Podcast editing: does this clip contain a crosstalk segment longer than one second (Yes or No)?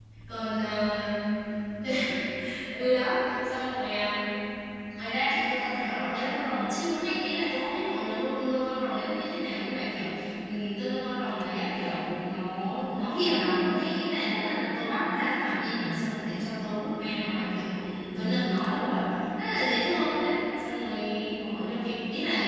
No